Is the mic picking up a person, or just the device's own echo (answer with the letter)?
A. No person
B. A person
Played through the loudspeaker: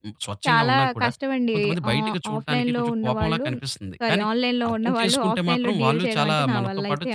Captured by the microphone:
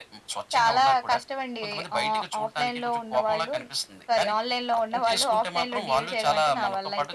A